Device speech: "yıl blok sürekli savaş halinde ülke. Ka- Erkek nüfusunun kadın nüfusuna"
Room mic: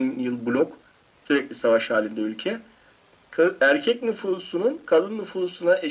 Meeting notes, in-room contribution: none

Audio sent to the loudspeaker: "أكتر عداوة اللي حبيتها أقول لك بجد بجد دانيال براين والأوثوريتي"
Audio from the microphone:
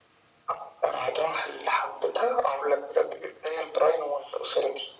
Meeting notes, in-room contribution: none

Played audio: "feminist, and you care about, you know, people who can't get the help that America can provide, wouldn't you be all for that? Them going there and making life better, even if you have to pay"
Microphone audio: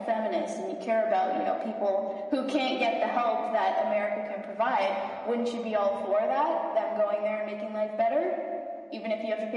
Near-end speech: none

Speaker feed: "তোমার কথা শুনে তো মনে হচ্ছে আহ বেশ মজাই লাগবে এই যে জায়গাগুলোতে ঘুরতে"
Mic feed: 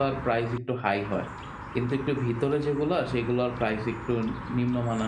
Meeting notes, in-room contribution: present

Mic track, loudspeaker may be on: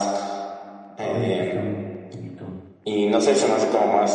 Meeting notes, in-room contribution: present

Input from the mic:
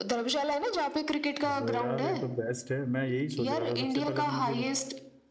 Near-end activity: present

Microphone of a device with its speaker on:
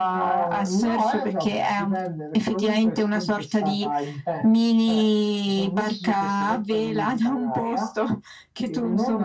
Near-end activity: none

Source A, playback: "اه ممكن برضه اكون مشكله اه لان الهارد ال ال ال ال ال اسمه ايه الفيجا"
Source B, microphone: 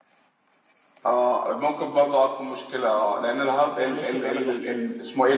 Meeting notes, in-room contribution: present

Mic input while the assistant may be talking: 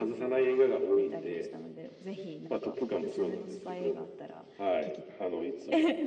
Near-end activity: none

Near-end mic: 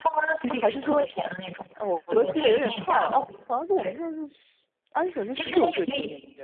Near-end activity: present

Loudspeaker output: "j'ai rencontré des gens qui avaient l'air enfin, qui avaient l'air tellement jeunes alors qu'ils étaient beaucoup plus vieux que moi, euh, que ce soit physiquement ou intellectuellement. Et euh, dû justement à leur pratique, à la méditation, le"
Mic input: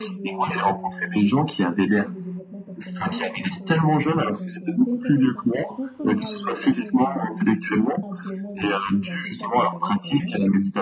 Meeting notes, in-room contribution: present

